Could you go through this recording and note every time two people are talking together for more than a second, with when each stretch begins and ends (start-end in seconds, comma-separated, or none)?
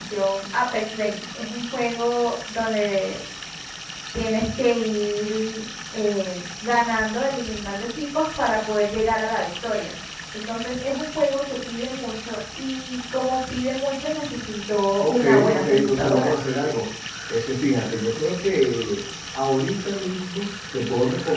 15.0-16.3